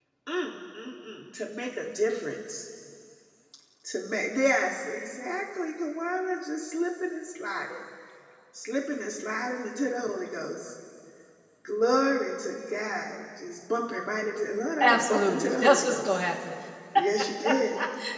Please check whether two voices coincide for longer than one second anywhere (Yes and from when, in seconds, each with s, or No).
Yes, from 14.8 s